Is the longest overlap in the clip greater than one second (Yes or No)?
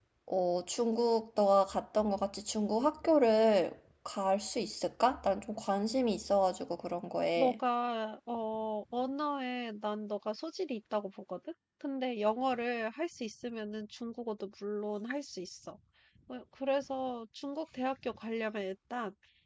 No